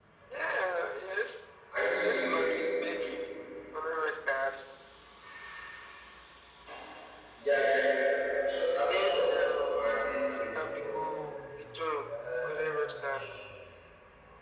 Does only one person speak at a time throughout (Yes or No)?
No